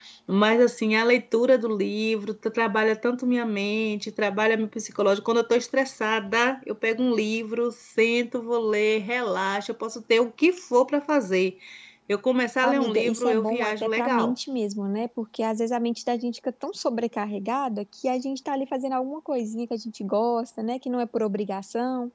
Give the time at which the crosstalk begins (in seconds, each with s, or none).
12.6 s